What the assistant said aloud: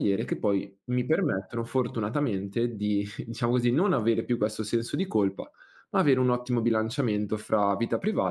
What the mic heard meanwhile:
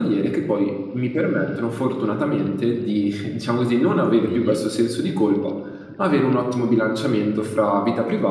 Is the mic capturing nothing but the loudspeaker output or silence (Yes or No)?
No